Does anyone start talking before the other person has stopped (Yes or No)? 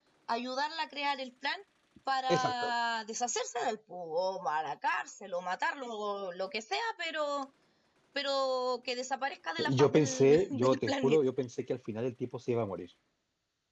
Yes